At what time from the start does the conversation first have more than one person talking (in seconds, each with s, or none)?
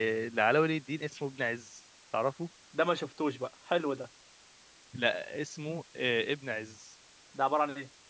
none